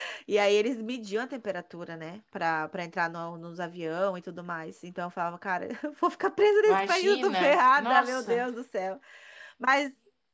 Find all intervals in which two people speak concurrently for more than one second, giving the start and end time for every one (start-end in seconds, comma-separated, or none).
6.7-8.4